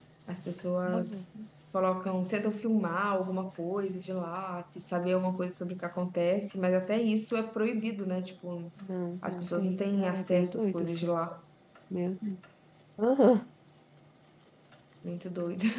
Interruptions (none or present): present